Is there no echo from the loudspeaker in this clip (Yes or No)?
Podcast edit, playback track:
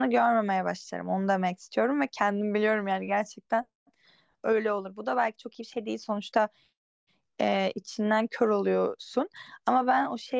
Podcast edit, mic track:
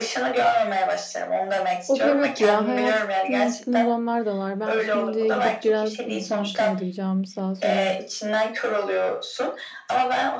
No